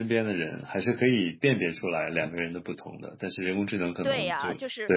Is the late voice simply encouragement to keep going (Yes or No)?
No